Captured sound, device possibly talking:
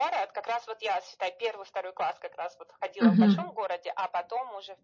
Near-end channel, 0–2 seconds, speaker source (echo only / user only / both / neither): echo only